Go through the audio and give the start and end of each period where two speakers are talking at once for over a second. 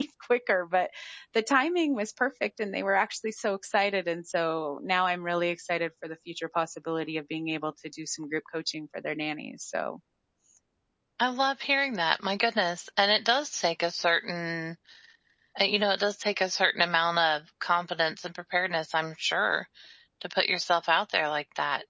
none

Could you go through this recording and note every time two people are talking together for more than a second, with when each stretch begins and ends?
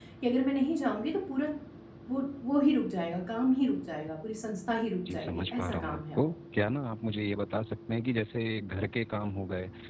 5.1-6.3

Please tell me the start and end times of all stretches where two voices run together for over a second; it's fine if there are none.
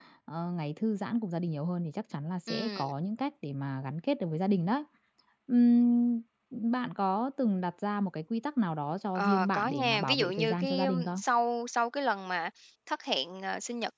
9.2-11.2

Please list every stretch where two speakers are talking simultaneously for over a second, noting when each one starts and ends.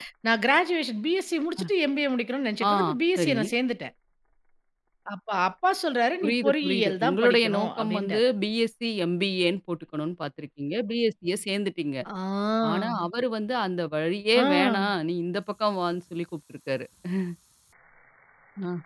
6.2-8.3

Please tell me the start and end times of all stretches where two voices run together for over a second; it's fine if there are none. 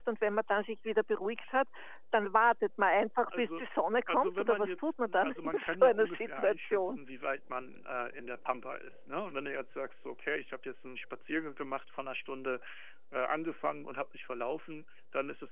4.1-7.0

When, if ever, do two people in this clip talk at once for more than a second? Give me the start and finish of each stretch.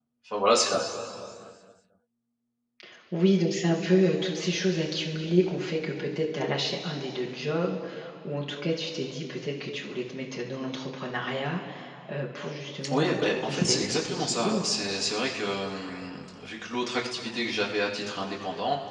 12.9-14.7

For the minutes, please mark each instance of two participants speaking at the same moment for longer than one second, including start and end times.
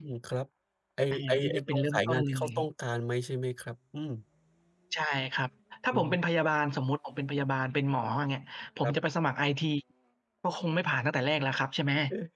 1.1-2.5

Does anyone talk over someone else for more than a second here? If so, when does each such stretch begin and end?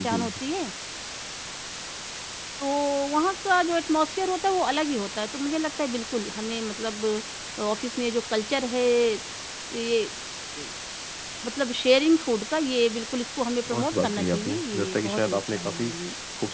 13.7-15.9

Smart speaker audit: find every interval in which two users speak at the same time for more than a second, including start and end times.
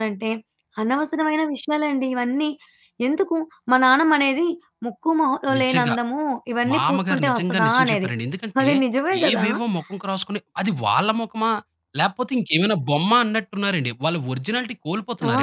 6.7-8.1

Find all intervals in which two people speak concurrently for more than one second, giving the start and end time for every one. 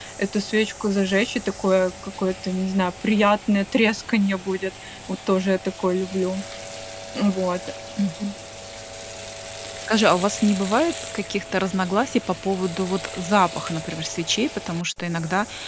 none

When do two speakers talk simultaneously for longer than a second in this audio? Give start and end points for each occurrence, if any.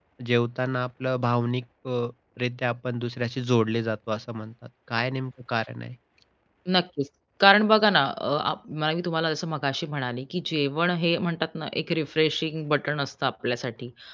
none

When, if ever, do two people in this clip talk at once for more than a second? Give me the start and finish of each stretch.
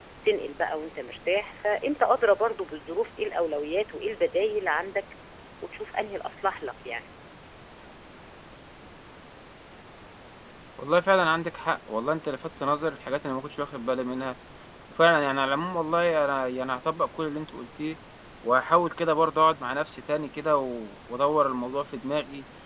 none

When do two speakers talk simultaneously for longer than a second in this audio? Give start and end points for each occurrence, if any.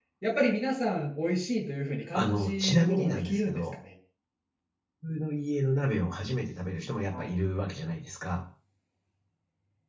2.1-3.6

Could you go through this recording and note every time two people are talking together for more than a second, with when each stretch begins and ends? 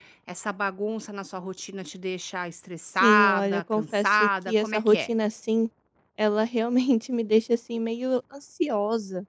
3.0-5.1

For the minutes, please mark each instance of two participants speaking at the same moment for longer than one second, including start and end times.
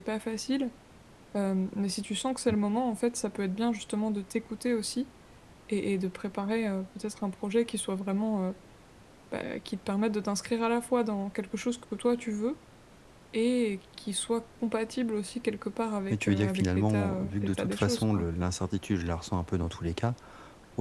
16.1-18.3

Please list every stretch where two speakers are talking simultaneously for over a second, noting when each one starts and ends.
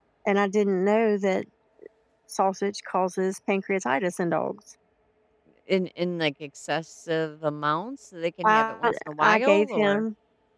8.4-10.0

